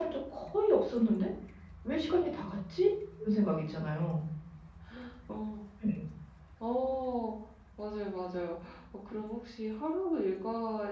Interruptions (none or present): none